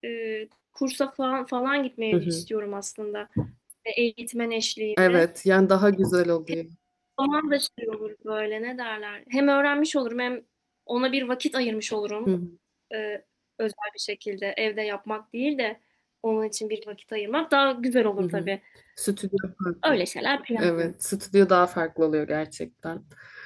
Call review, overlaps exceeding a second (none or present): none